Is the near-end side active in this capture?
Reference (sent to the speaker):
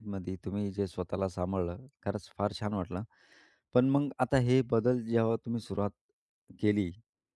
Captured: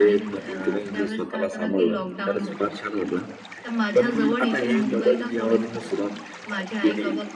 Yes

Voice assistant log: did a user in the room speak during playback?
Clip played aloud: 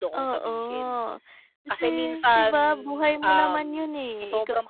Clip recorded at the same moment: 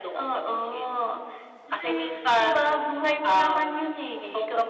No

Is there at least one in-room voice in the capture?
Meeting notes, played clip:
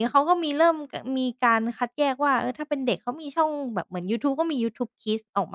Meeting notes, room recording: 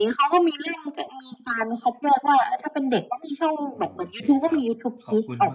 Yes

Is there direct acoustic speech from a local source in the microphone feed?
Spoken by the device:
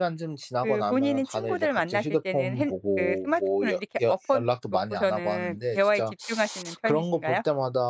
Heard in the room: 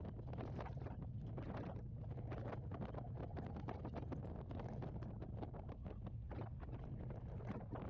No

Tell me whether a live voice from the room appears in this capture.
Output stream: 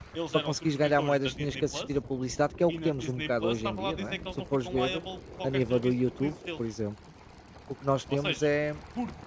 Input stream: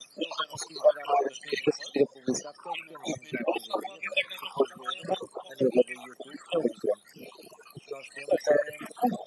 No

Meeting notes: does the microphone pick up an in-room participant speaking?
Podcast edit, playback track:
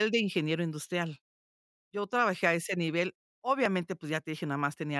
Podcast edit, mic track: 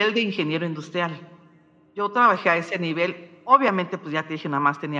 No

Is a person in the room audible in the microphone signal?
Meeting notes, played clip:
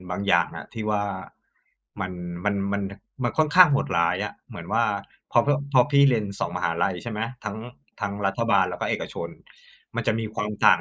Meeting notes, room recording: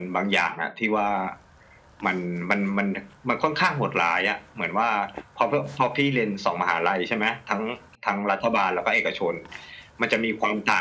No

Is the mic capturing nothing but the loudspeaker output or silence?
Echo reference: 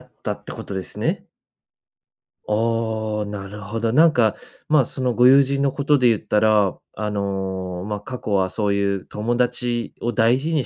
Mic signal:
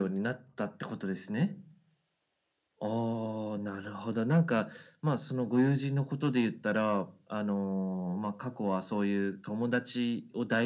Yes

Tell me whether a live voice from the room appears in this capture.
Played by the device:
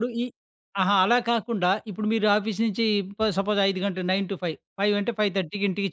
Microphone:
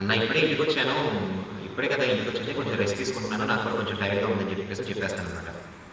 Yes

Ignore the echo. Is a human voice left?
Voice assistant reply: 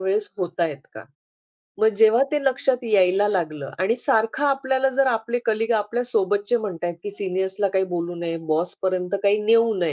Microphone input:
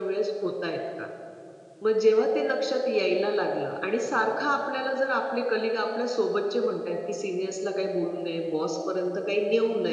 No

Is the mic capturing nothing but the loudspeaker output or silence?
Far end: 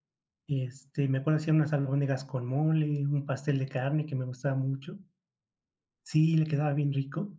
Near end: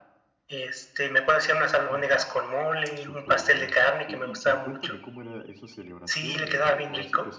No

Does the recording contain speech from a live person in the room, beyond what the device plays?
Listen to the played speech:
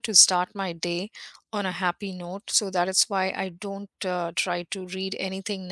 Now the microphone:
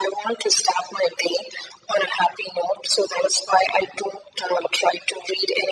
No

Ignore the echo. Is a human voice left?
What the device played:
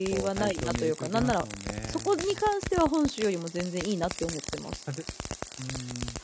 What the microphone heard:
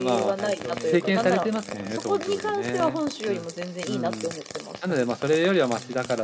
Yes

